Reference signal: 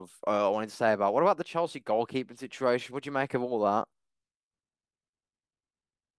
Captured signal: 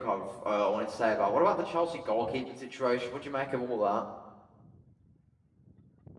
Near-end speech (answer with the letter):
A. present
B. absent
B